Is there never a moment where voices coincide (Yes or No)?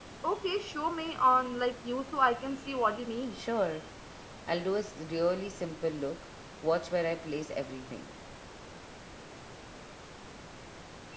Yes